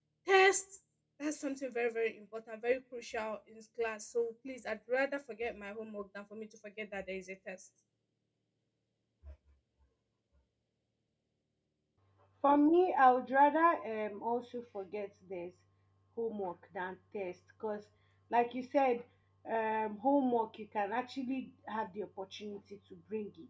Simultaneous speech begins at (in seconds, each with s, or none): none